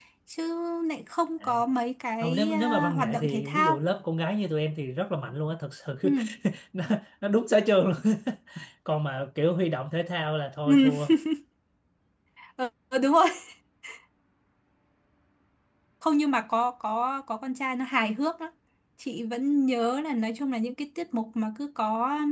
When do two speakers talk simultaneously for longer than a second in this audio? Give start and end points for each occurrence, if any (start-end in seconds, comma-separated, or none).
2.2-3.8